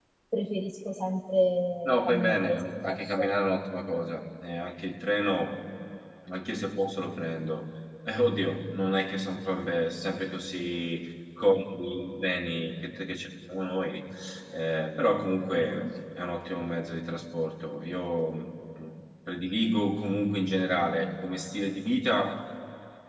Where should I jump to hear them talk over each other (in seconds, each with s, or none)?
1.8 s